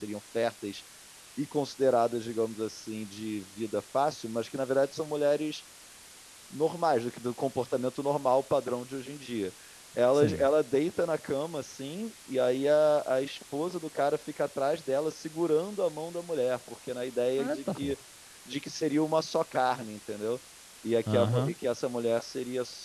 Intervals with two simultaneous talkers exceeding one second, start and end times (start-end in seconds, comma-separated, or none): none